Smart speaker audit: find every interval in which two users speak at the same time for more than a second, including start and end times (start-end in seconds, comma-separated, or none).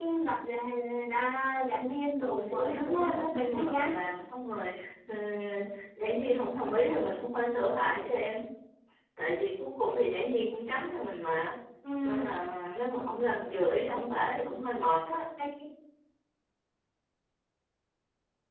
2.2-3.9